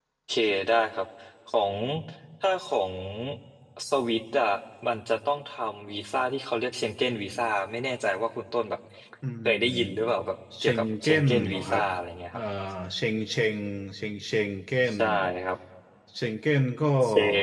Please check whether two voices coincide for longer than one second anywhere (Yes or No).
Yes